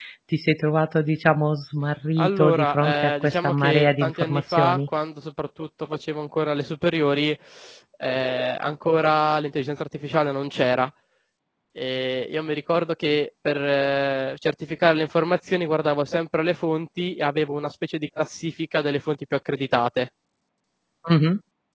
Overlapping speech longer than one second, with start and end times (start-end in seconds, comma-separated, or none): 2.2-4.9